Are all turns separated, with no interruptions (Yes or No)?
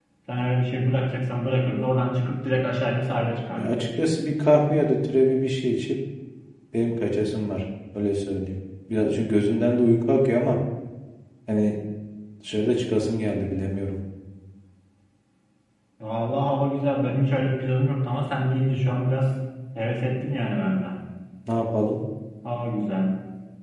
Yes